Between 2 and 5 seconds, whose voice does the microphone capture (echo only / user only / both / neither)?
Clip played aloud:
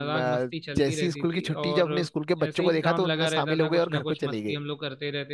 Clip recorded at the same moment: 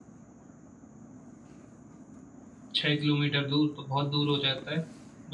user only